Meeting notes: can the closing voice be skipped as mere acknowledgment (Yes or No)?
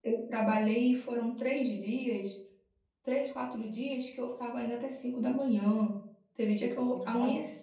Yes